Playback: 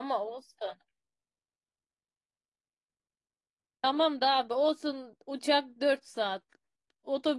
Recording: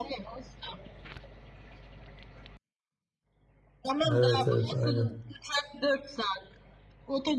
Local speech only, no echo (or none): Evet evet aynen.